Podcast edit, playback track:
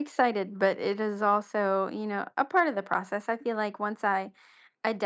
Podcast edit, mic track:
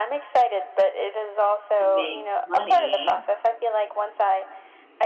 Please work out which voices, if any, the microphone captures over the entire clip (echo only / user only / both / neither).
both